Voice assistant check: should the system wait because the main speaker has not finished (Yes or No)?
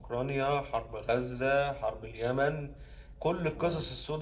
Yes